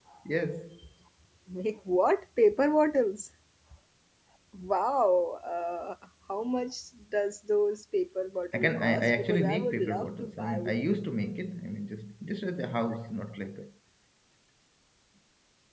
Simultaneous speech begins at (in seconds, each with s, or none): 8.5 s